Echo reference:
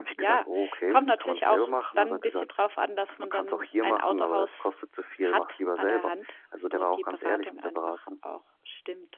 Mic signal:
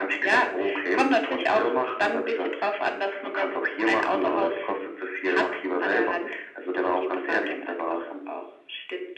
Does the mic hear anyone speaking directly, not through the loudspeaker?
No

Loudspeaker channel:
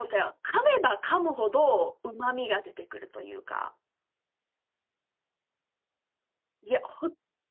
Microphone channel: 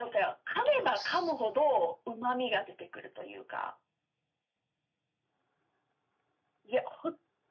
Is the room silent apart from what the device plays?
No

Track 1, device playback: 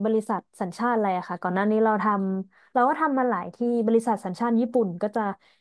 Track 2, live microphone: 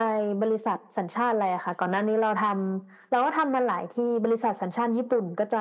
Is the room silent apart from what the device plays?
Yes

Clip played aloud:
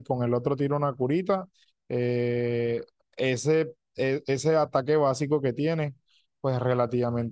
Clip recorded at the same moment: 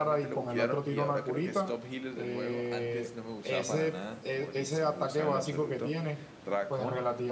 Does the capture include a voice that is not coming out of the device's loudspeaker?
Yes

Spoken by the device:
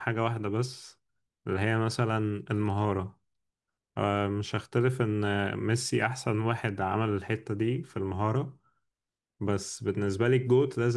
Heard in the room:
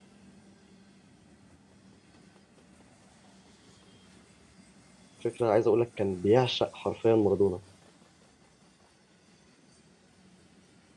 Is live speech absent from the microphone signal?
No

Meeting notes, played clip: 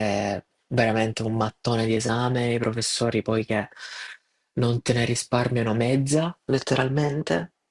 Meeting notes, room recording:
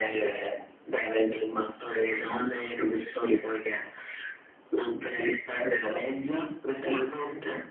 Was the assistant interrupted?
No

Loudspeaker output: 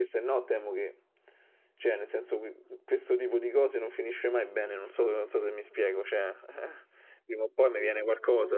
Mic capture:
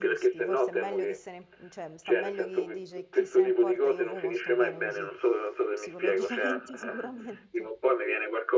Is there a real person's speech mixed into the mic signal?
Yes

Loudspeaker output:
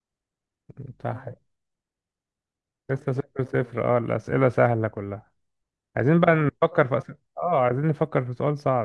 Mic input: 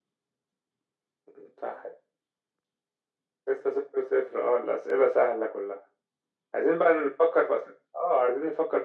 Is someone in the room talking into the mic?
No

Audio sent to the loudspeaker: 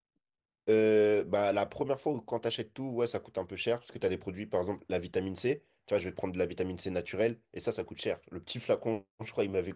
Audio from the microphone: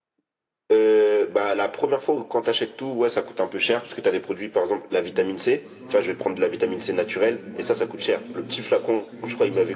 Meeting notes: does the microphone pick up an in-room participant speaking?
Yes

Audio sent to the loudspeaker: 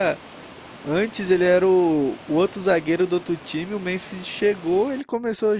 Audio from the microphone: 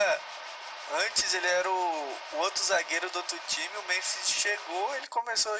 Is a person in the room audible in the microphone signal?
No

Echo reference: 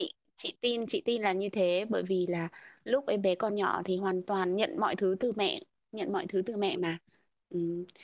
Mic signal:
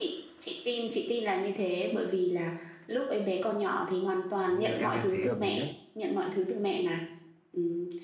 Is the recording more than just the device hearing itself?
Yes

